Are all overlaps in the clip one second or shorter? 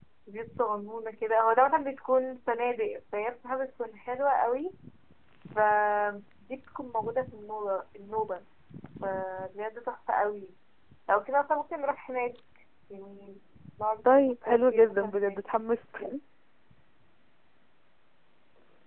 No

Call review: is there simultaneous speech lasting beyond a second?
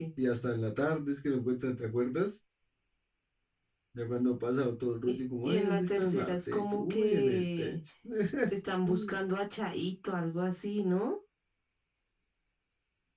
Yes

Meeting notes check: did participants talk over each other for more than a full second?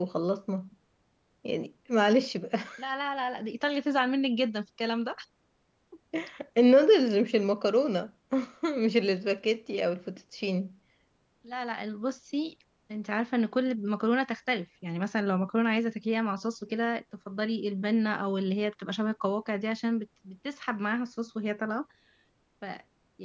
No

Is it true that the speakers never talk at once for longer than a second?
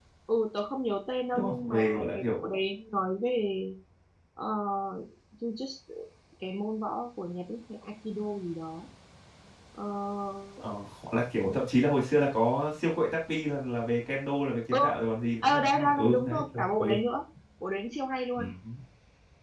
No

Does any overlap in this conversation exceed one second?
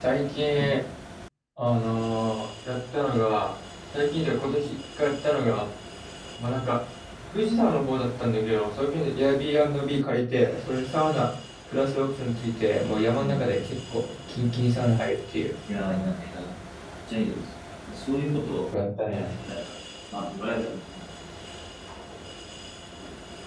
No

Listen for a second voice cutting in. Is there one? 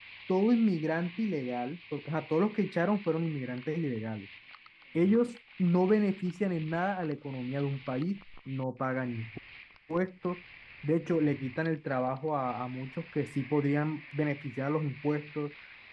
No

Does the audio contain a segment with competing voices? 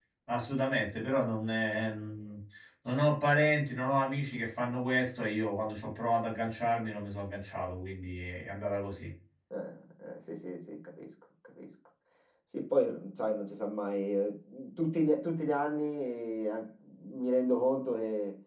No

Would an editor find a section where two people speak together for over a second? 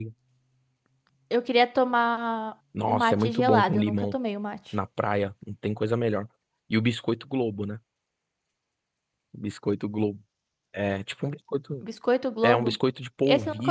Yes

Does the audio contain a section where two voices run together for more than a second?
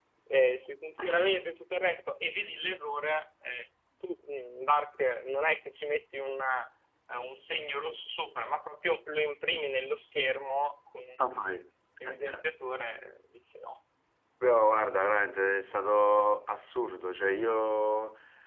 No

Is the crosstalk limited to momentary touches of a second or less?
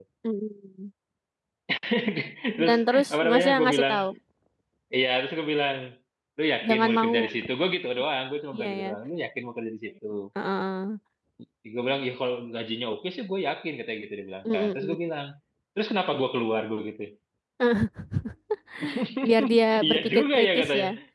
No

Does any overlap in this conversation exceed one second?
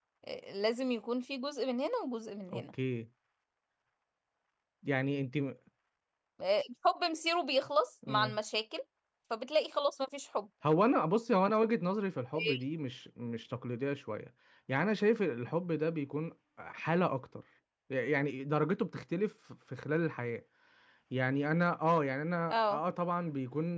No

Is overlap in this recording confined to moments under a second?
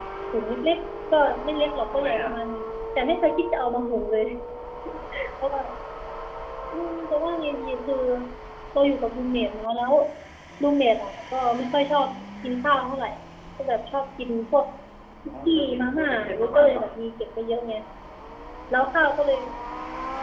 No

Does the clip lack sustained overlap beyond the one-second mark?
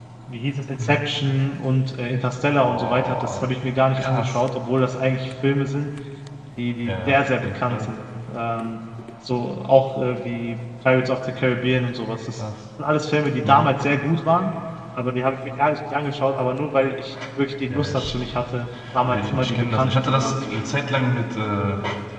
No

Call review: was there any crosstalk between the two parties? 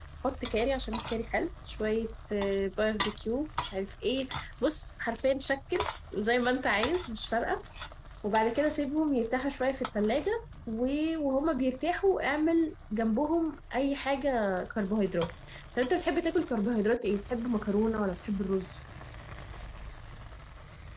No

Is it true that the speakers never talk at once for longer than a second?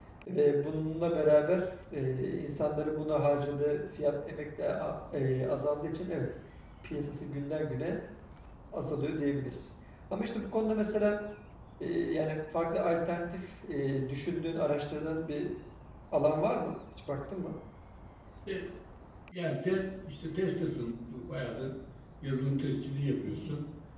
Yes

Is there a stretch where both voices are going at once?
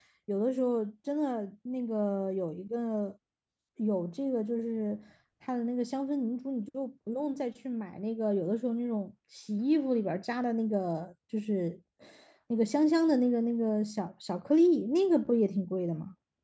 No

